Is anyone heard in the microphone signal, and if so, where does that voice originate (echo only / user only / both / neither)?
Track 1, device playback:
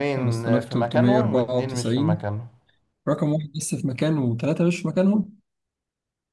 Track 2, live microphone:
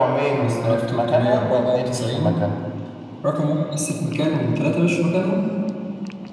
echo only